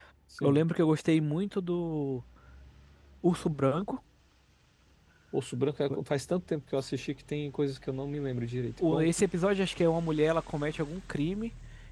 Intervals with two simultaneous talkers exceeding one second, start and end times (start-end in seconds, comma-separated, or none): none